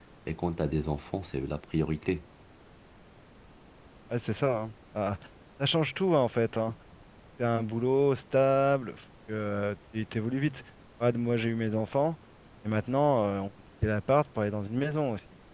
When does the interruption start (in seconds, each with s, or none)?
none